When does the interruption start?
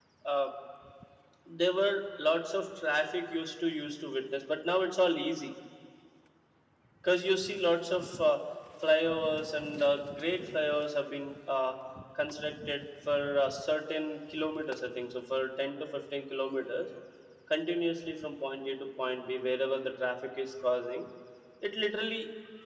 none

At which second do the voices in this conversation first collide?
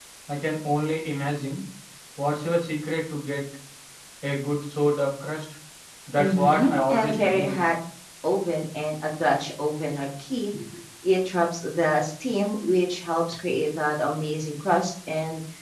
6.2 s

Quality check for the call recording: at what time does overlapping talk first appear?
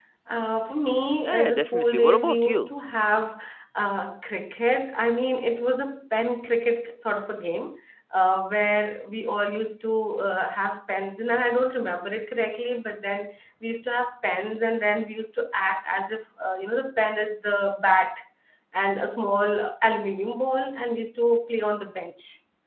1.2 s

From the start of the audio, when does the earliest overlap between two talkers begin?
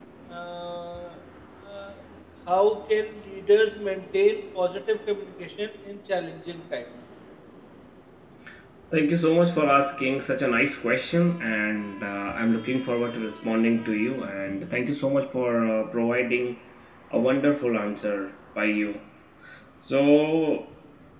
none

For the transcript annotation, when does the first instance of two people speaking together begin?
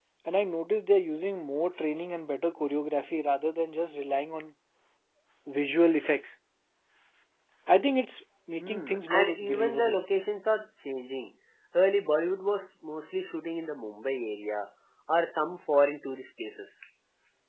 8.6 s

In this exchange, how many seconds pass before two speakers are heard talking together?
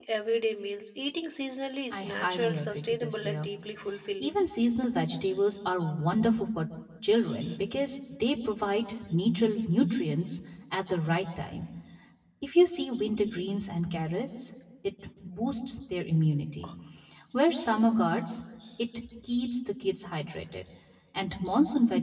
1.9 s

